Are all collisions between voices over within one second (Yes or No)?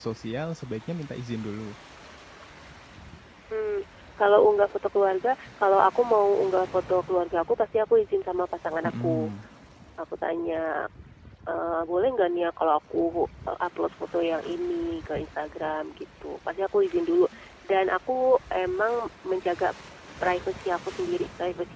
Yes